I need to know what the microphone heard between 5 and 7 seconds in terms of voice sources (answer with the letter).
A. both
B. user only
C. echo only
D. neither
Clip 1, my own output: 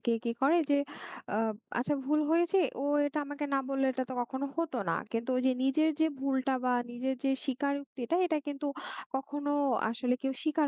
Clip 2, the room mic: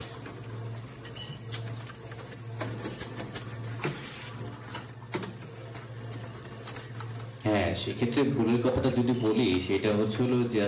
D